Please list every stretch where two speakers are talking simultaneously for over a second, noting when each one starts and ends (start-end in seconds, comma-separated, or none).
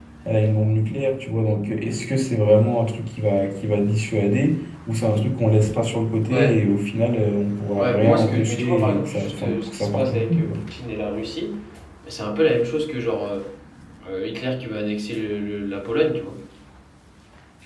7.8-10.6